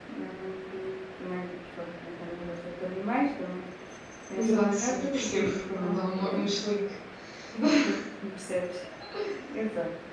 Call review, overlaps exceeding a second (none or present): present